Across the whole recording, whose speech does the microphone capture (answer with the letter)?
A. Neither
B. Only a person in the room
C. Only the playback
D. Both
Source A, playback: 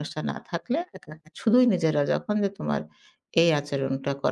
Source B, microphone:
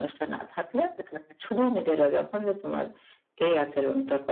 C